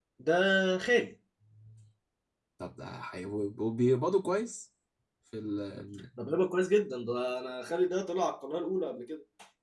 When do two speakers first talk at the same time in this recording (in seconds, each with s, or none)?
none